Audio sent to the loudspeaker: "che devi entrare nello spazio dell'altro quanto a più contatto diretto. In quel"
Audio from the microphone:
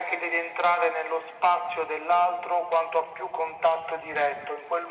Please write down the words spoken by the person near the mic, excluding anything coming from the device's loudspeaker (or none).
none